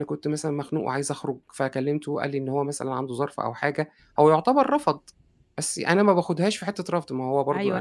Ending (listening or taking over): taking over